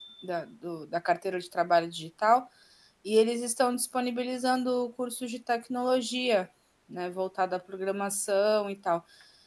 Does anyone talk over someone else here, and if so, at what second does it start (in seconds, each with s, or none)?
none